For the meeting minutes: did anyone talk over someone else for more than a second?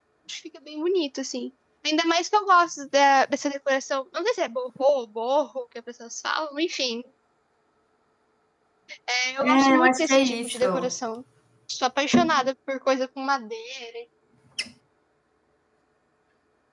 Yes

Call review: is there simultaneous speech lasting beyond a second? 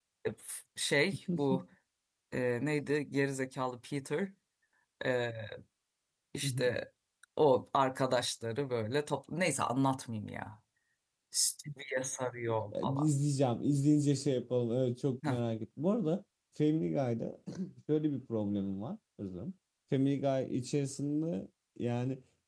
No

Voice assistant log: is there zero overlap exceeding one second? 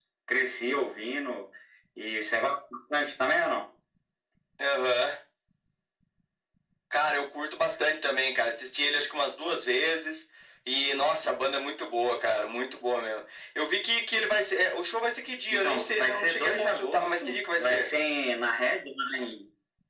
No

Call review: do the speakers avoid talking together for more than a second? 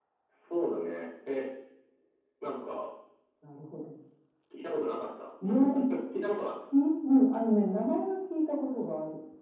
Yes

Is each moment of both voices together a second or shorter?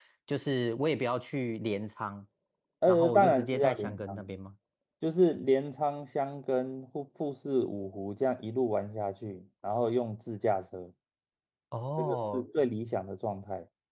No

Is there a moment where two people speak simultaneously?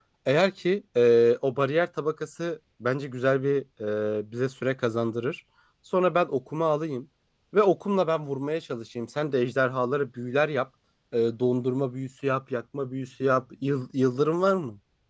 No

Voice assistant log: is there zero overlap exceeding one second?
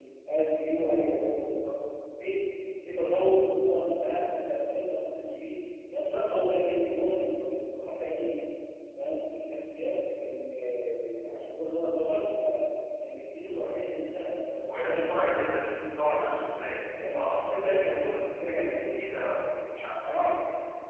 No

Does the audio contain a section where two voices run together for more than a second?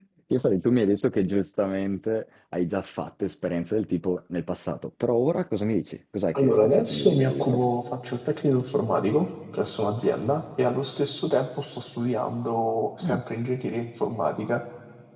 Yes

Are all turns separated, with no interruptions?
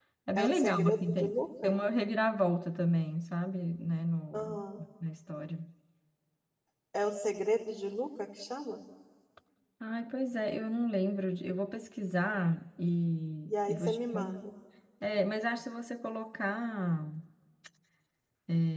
No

